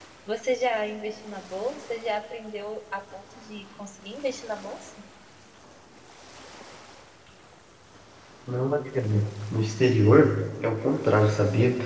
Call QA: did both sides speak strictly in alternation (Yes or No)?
Yes